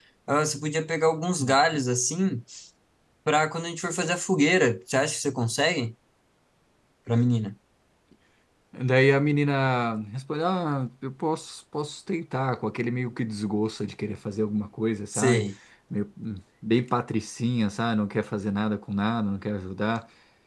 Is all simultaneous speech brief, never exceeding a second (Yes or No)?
Yes